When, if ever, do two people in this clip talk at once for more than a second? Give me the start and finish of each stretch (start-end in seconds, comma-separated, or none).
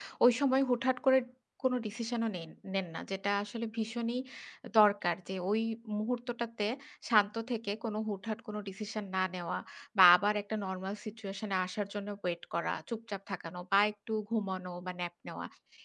none